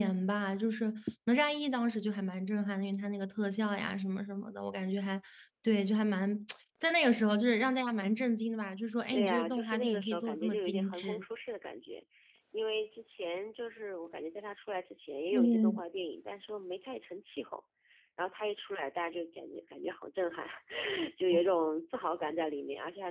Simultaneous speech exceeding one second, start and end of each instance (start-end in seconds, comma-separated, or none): 9.1-11.2